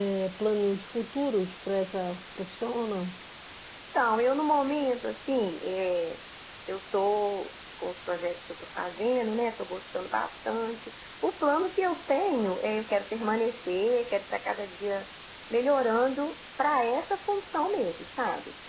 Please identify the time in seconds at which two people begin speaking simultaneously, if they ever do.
none

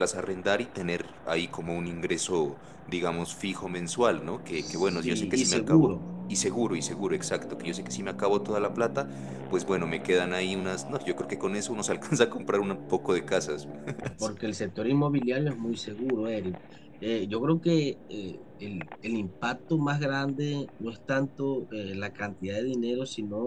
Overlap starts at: 4.5 s

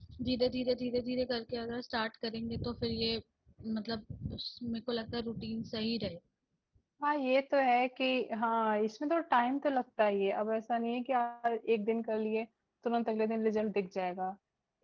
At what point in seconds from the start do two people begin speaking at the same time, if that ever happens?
none

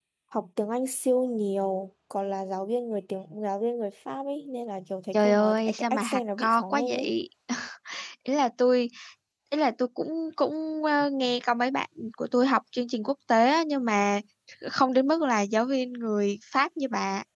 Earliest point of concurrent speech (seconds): 5.1 s

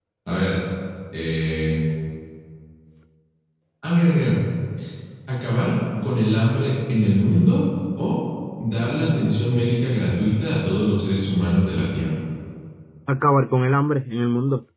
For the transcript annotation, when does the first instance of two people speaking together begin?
none

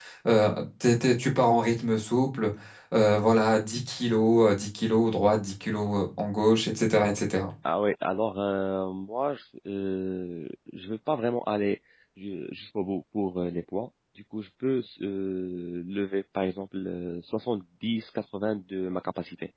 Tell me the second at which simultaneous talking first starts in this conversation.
none

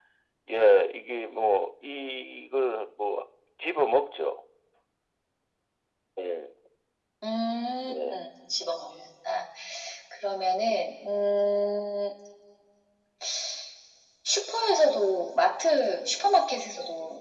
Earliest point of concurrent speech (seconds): none

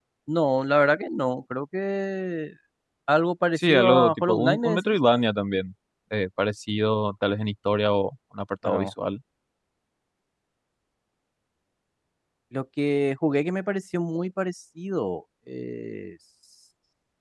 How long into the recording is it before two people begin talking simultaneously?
3.6 s

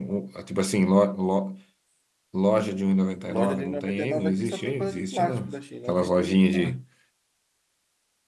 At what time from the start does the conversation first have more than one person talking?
3.2 s

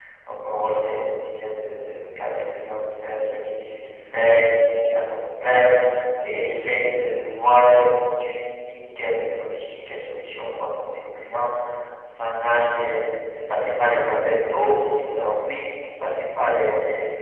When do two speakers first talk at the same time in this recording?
none

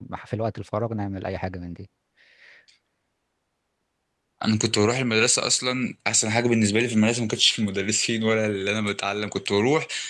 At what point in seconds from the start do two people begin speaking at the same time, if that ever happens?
none

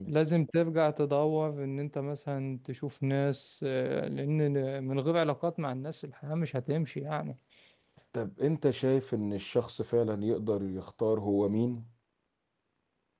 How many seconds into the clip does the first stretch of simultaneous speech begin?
none

